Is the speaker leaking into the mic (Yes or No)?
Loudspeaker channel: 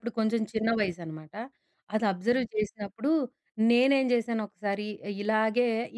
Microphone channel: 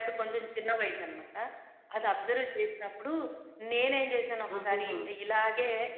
Yes